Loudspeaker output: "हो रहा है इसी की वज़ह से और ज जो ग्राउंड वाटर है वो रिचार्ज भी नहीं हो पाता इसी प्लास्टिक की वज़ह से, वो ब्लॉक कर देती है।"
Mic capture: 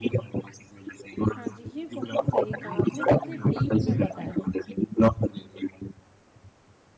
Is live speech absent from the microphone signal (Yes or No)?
No